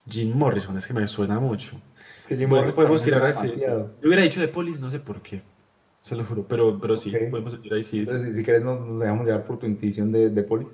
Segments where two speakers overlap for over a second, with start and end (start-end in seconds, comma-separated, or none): 2.4-3.8